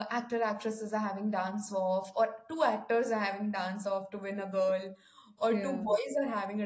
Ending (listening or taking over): listening